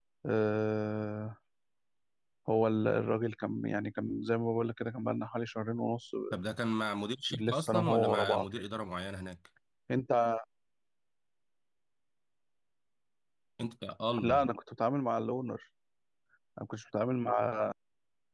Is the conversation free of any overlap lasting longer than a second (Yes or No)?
No